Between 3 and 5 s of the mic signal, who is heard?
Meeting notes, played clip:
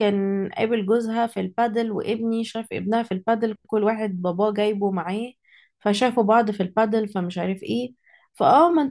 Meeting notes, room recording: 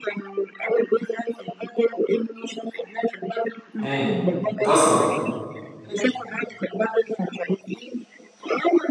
both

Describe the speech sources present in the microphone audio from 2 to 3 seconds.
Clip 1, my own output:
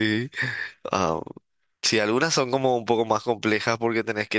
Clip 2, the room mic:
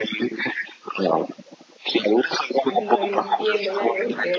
both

